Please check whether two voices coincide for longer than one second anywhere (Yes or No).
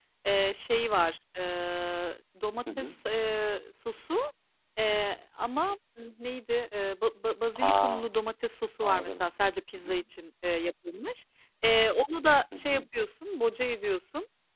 No